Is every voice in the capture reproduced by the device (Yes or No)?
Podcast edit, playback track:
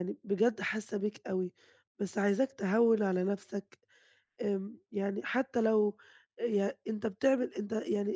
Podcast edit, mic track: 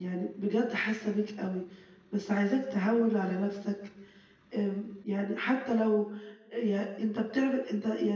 Yes